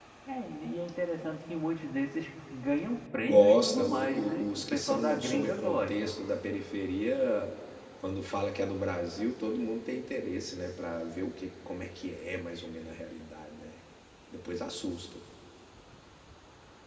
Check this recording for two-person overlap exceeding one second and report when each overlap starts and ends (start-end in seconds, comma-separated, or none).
3.3-6.1